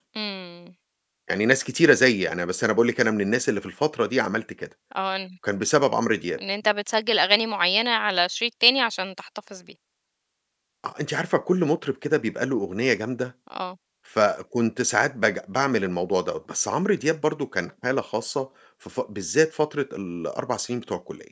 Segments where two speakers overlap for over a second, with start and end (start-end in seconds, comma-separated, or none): none